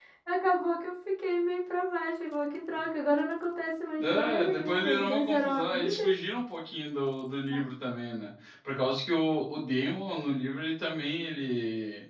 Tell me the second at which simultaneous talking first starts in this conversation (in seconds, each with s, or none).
4.0 s